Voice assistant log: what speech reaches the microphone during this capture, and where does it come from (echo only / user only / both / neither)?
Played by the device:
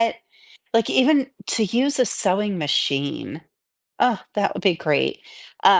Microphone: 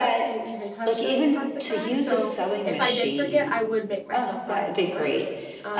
both